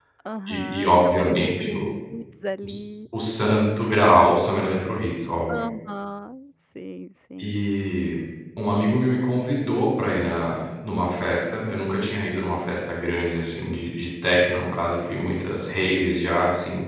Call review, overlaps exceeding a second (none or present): present